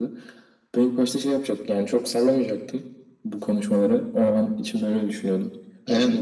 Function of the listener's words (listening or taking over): listening